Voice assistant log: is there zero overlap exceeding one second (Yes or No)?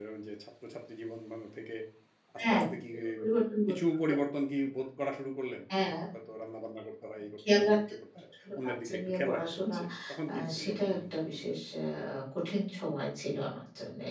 No